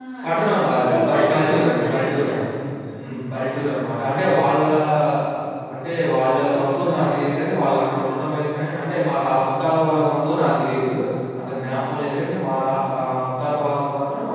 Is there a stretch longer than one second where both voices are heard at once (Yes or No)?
Yes